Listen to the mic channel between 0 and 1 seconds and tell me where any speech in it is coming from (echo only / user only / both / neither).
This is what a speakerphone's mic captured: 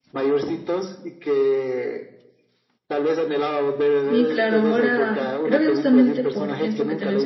echo only